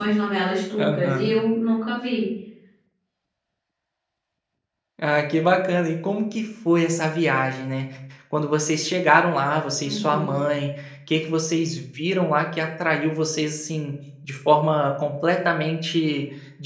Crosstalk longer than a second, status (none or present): none